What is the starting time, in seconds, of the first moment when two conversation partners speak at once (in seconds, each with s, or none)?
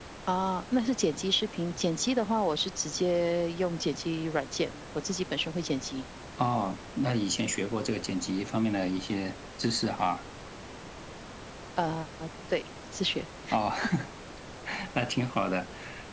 none